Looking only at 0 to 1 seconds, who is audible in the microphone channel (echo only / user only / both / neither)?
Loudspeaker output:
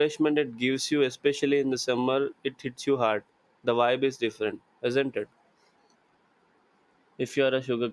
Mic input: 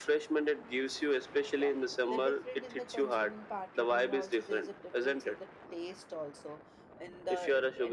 echo only